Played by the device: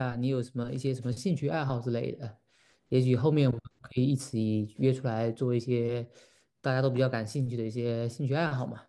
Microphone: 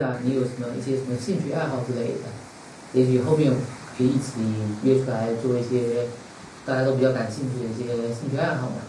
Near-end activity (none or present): none